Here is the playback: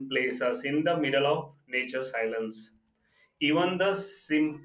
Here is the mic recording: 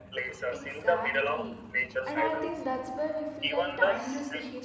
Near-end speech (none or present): present